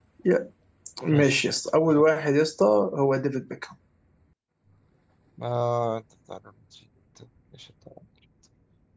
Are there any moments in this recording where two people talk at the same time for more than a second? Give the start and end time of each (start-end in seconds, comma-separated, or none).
none